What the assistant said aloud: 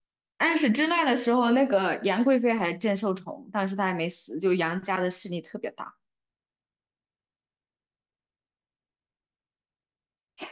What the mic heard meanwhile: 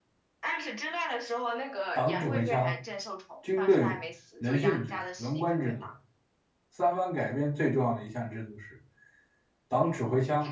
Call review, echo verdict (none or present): present